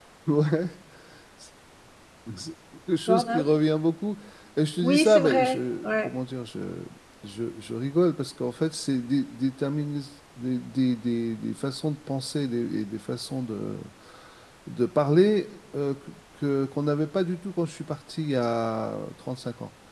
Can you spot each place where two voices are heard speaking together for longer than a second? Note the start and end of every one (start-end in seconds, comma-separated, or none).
4.8-6.1